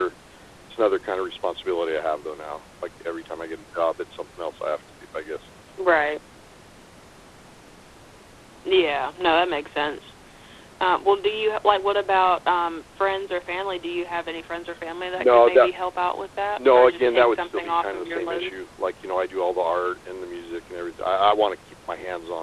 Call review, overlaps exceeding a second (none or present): present